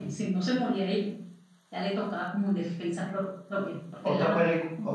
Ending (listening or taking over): taking over